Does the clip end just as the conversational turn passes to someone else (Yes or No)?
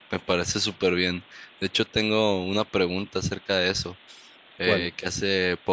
No